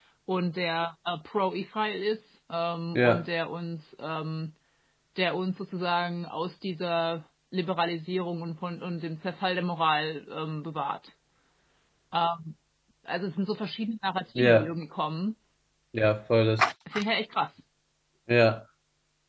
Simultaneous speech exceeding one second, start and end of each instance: none

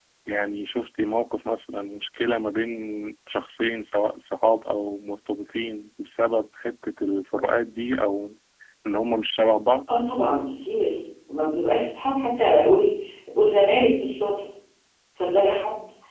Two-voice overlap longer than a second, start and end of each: none

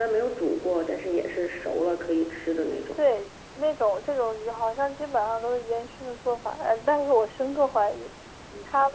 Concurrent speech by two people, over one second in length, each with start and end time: none

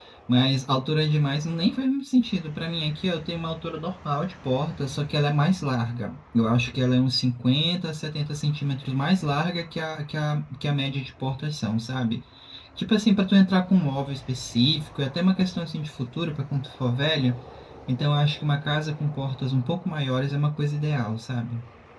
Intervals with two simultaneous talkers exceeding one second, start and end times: none

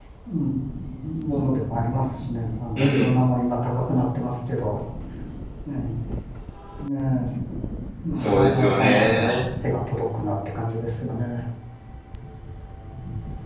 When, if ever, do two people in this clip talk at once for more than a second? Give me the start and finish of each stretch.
8.2-9.4

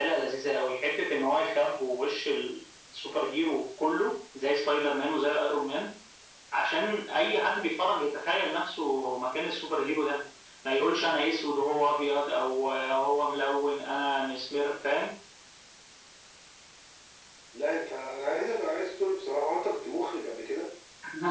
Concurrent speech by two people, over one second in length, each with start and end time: none

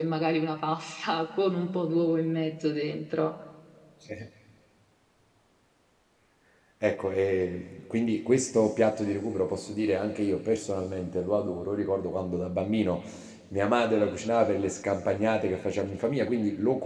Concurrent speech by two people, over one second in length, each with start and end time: none

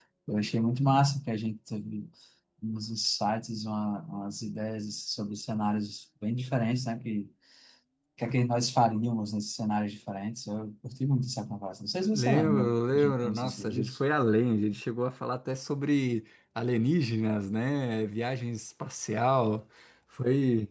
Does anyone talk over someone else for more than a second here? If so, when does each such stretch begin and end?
12.1-13.9

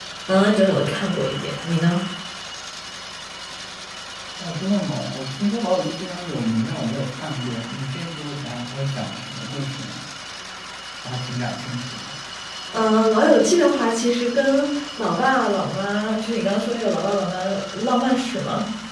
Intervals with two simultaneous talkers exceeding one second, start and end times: none

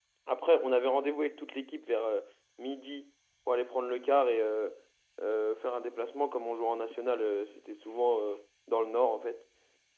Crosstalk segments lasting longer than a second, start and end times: none

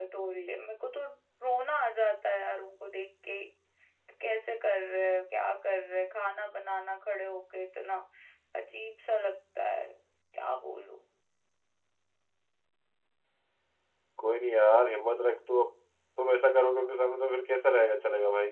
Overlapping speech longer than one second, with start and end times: none

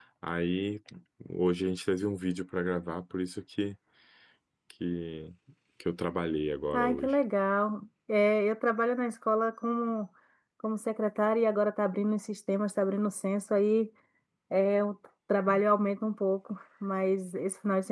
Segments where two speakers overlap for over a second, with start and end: none

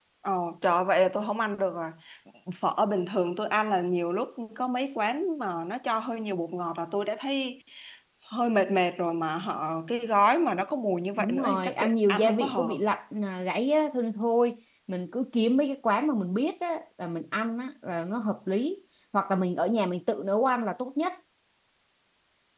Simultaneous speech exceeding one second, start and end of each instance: 11.2-12.8

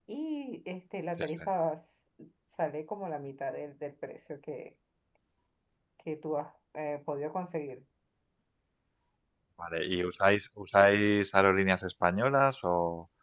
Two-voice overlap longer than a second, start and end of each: none

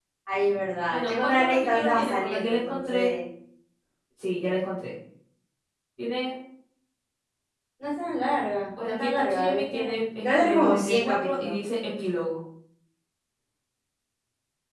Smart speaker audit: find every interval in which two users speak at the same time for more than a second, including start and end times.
0.9-3.1, 8.8-11.5

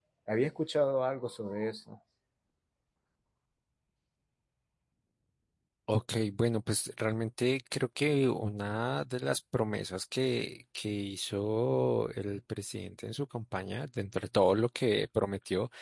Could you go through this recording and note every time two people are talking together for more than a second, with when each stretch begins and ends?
none

